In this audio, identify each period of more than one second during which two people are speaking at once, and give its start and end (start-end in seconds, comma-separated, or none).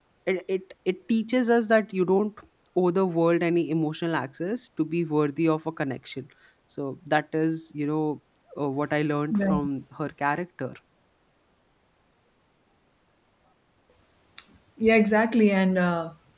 none